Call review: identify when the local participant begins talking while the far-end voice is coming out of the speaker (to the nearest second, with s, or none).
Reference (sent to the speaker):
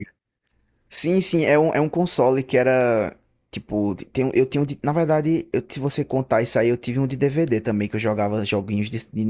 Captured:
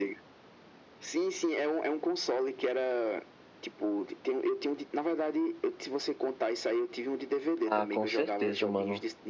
8 s